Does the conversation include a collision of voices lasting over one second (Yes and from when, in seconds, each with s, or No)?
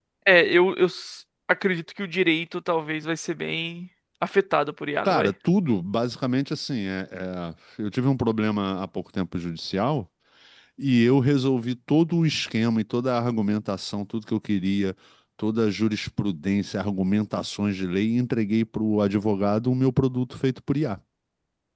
No